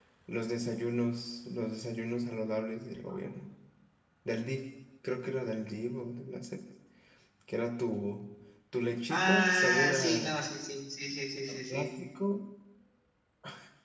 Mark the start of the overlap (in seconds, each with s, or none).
9.1 s